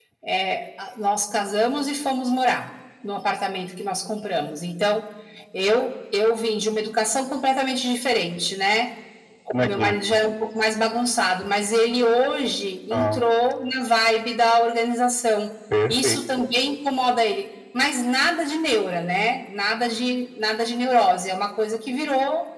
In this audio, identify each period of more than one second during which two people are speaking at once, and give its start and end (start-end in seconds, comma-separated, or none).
none